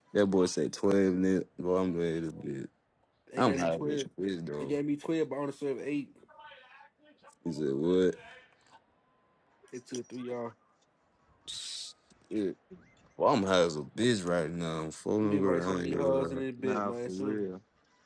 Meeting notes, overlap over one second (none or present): present